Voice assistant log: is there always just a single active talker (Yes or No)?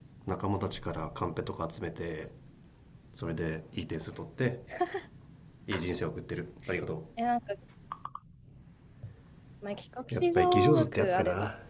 No